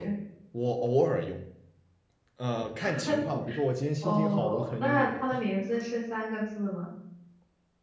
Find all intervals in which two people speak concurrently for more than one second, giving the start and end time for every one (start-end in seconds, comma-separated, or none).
4.0-5.2